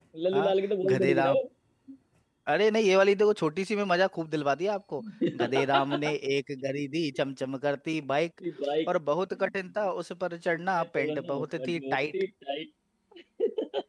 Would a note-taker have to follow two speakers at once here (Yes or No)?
Yes